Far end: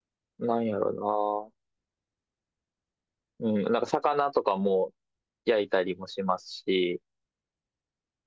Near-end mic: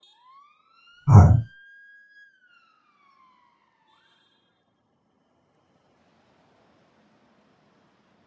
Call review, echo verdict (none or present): none